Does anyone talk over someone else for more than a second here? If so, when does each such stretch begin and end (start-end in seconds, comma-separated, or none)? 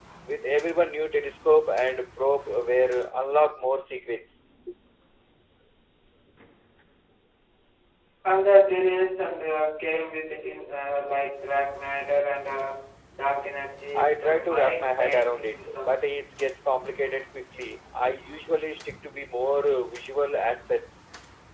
13.9-15.9